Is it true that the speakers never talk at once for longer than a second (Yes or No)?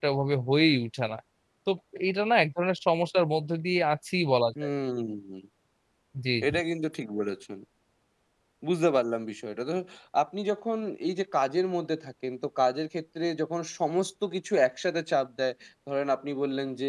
Yes